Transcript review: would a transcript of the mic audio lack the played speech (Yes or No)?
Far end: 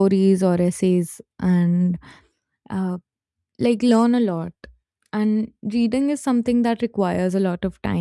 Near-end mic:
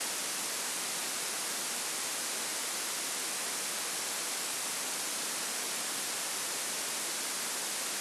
Yes